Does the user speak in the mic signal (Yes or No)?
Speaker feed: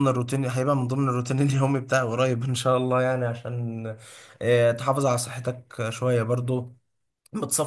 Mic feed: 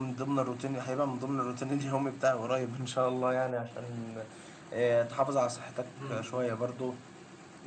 Yes